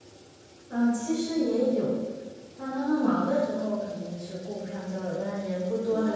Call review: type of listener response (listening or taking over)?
taking over